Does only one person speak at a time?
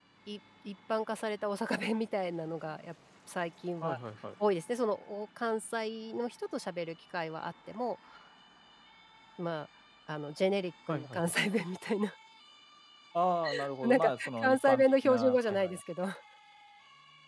No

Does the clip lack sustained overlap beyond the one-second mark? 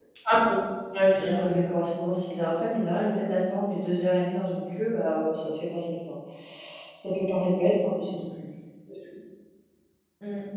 Yes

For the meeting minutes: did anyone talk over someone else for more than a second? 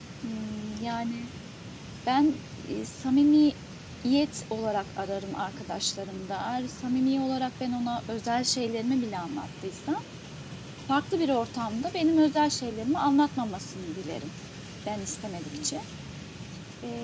No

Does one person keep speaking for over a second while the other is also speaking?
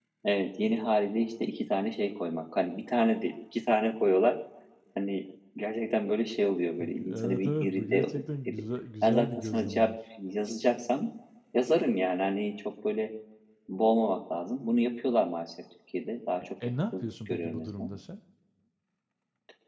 Yes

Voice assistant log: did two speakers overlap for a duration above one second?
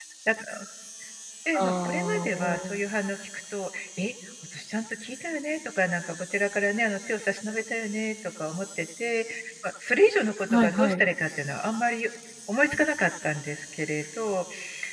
Yes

